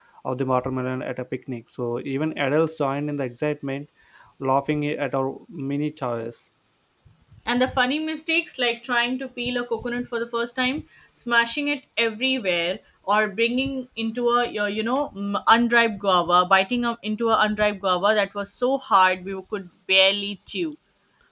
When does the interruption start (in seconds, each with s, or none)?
none